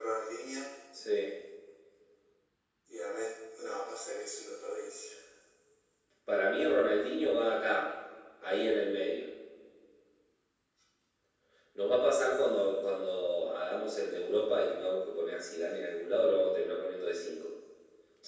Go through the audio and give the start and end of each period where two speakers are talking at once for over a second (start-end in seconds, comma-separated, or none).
none